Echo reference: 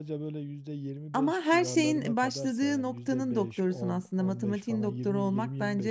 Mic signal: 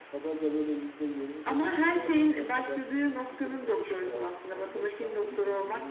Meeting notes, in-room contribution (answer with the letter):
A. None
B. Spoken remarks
A